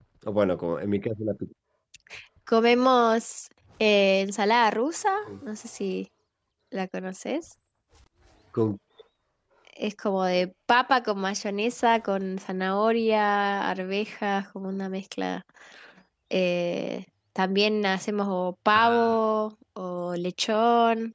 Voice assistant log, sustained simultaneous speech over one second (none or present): none